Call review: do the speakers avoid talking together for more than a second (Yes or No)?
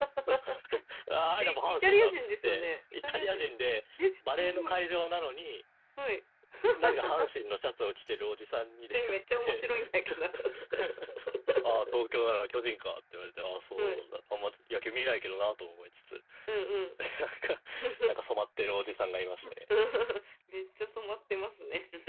No